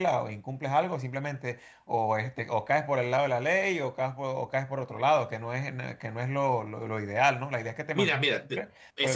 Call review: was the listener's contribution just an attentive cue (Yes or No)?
No